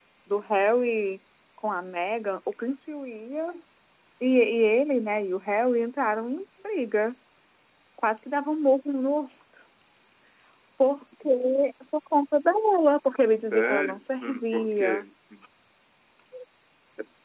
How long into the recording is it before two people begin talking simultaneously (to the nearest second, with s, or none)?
14 s